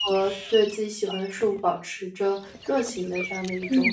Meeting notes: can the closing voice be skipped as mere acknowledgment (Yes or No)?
No